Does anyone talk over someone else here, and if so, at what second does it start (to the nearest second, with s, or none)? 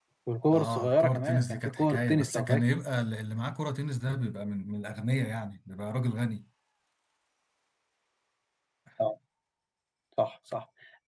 1 s